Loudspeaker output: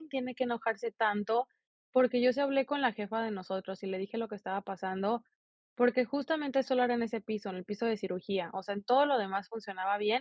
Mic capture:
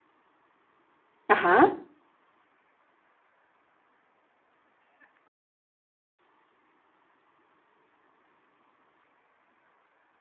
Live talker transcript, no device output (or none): Ajá.